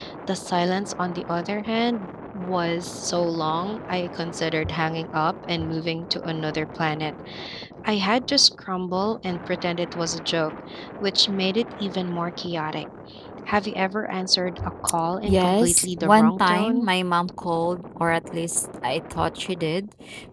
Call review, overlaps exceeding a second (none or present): present